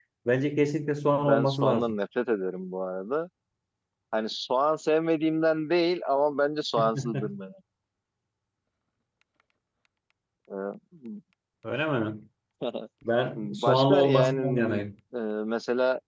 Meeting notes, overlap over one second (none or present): present